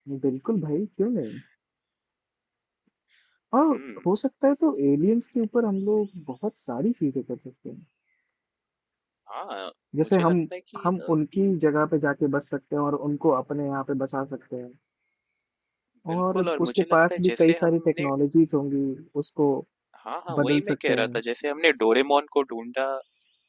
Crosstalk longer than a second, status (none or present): present